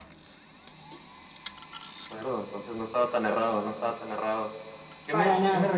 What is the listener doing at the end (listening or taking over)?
listening